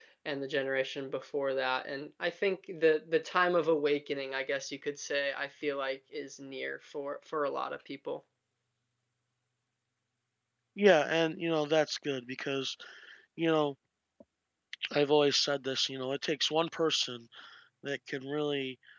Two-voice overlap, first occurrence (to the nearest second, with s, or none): none